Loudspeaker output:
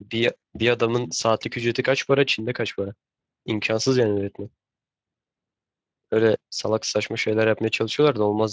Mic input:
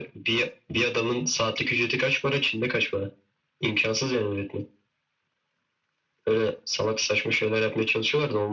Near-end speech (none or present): none